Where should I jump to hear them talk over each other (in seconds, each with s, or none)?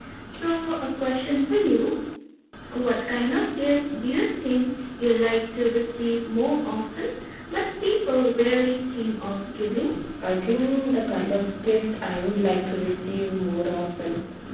none